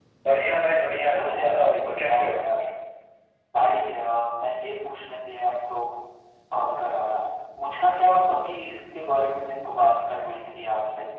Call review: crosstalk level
present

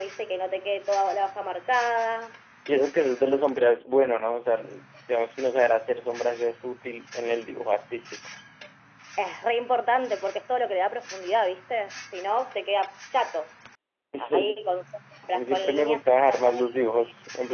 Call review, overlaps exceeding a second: present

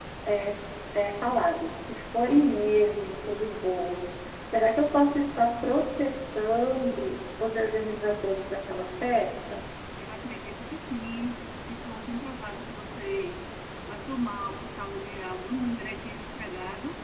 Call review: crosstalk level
none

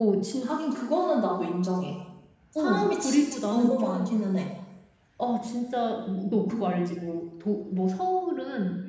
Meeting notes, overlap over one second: present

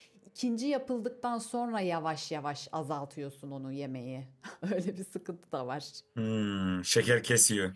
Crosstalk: none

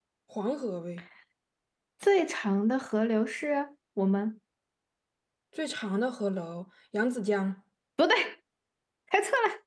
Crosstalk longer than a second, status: none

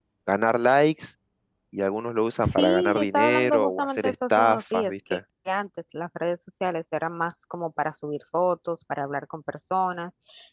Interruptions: present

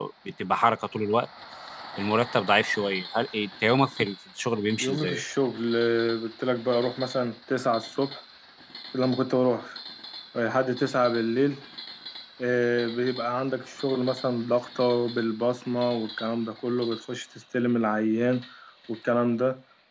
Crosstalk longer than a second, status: none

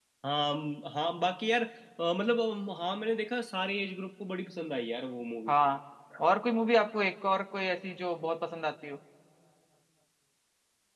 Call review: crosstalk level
none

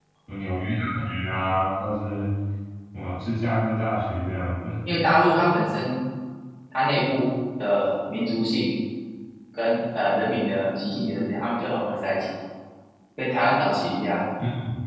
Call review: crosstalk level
none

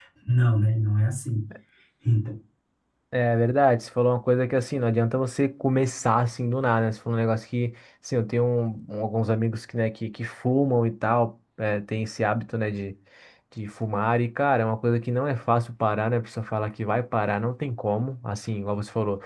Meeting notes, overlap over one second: none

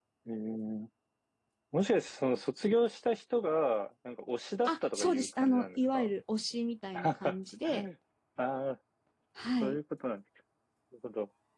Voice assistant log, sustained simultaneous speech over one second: present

